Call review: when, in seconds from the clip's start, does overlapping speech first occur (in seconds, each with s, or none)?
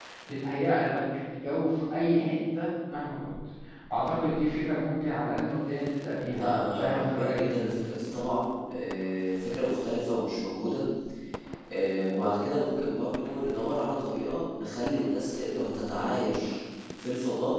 6.3 s